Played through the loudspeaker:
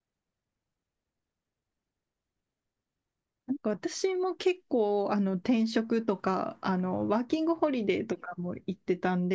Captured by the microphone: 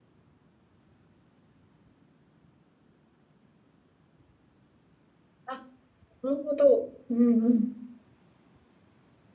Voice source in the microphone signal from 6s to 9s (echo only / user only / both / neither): user only